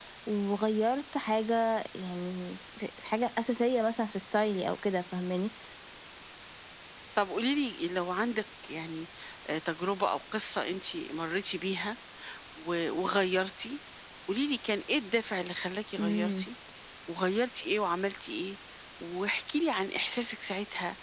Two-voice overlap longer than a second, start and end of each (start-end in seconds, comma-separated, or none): none